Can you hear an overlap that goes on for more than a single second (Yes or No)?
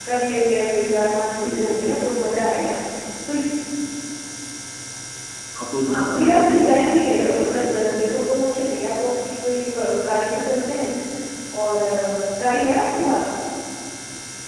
Yes